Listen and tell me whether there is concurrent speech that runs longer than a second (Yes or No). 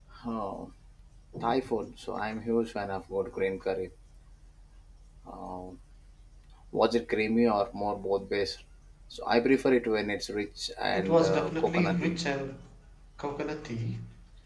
Yes